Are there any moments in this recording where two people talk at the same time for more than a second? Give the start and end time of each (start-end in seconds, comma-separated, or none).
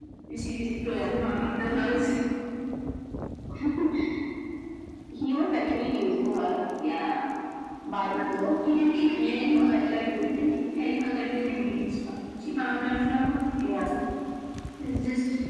9.2-10.4